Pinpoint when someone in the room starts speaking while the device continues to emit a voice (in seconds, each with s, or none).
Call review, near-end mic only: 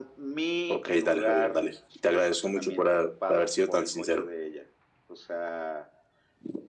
none